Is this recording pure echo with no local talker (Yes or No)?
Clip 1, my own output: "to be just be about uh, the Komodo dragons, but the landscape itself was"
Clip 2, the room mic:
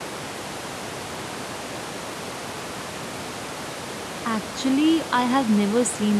No